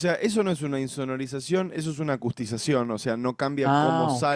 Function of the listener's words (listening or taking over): listening